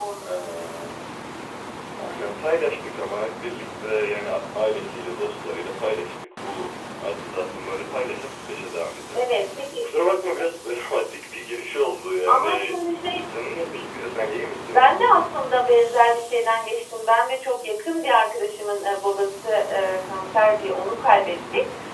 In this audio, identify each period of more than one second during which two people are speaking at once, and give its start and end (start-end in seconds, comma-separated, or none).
none